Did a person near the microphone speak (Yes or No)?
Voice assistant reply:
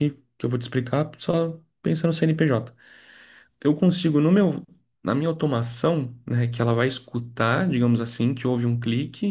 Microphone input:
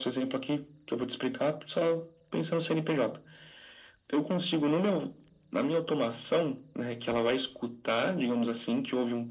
No